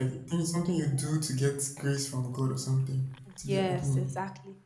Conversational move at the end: taking over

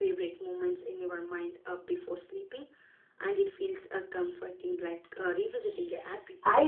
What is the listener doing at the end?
taking over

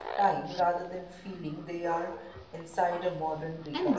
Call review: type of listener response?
taking over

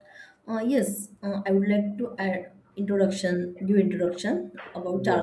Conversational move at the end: listening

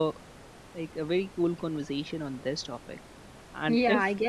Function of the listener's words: taking over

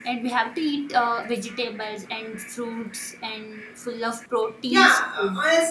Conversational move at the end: taking over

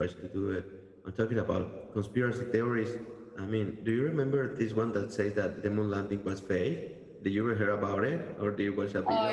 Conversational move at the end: taking over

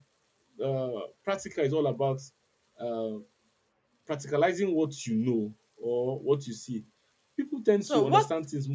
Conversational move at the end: listening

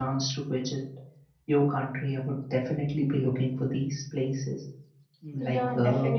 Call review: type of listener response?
taking over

